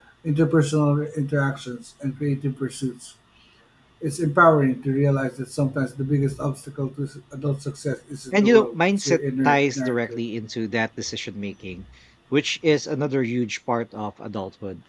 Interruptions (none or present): present